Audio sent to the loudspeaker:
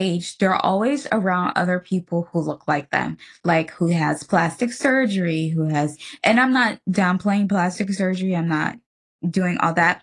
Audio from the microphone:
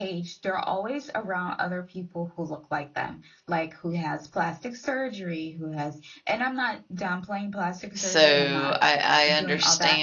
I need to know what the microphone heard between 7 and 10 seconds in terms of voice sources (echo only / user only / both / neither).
both